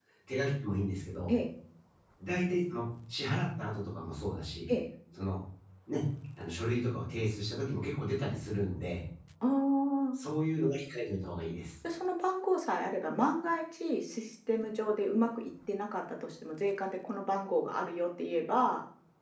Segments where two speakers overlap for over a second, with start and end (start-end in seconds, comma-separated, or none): none